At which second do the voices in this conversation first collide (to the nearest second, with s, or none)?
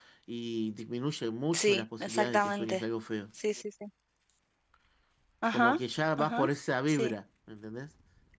2 s